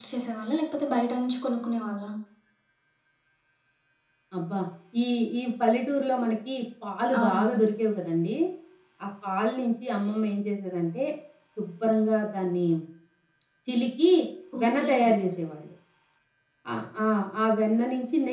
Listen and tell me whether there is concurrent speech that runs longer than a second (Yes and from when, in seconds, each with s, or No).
No